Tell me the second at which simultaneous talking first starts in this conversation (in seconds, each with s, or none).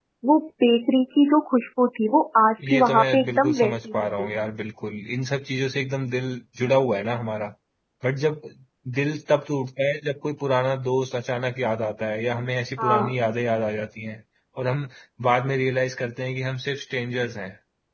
2.7 s